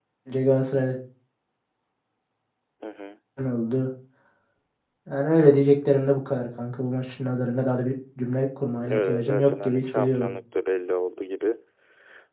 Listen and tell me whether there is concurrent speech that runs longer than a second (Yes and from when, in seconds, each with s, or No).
Yes, from 8.8 s